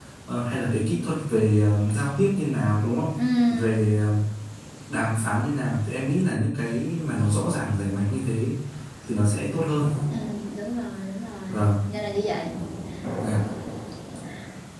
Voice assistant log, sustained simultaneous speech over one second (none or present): none